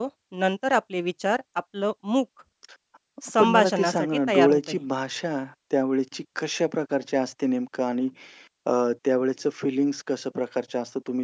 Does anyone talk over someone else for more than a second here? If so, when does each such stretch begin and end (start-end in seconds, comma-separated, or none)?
3.4-4.8